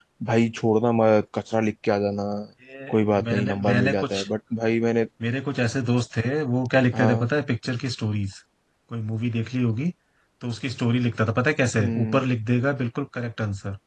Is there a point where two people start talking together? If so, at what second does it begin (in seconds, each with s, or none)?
2.9 s